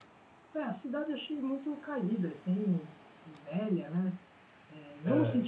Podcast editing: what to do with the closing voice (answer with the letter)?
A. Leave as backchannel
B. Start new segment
A